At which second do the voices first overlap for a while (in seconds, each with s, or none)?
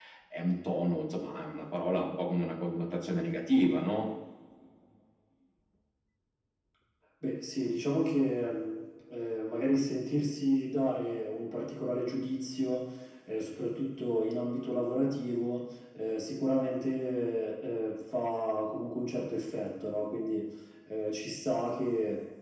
none